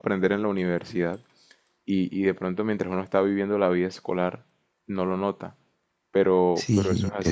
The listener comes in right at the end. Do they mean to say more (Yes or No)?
Yes